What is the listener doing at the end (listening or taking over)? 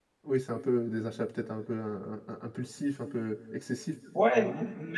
taking over